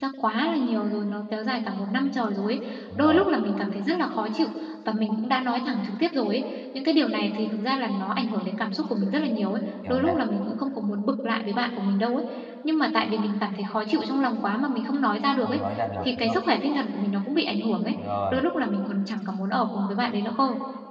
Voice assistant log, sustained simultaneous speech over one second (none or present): none